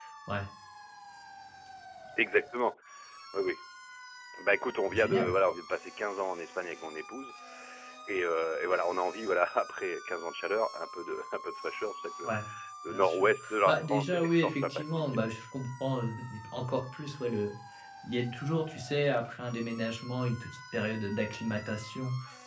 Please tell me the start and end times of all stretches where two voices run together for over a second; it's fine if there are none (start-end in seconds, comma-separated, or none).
12.9-15.0